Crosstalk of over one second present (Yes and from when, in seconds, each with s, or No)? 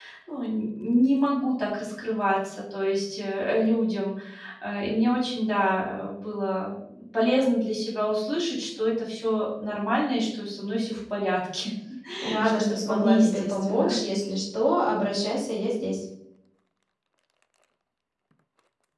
Yes, from 12.4 s